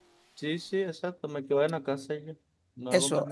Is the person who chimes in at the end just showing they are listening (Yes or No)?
No